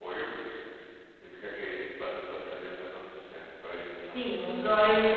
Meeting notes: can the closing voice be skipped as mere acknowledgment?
No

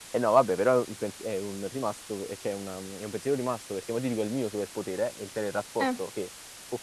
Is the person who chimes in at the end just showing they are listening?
Yes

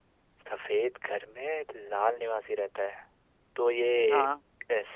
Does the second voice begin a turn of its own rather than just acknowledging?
No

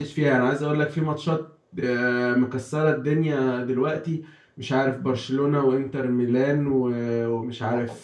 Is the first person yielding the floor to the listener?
No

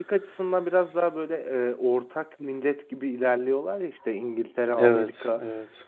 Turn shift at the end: No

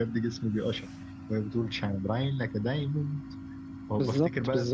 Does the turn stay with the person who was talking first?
Yes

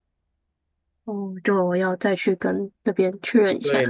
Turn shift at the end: Yes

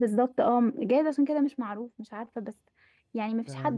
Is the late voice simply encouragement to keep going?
Yes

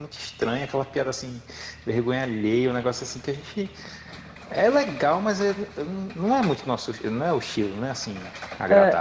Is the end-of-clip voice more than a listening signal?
Yes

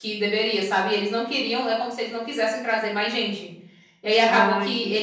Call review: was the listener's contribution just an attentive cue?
Yes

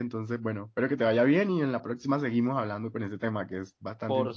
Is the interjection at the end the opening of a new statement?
Yes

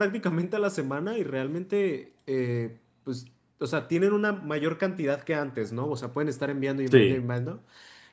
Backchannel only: Yes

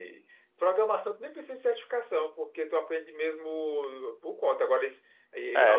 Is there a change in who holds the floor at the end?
Yes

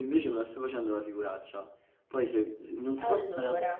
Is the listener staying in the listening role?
Yes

